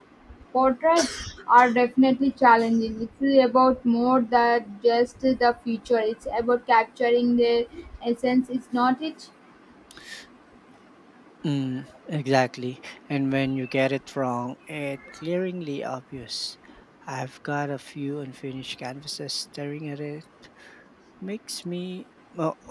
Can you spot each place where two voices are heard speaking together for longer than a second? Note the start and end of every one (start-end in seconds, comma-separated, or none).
none